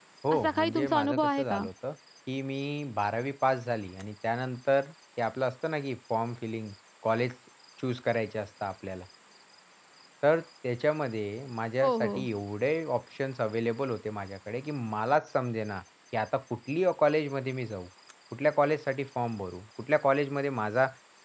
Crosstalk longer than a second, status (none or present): present